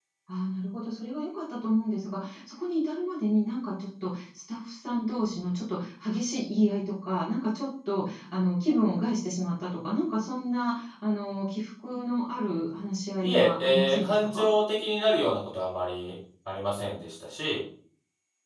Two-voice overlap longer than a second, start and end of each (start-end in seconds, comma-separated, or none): 13.2-14.5